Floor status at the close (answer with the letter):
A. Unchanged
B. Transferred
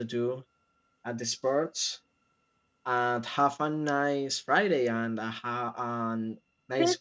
B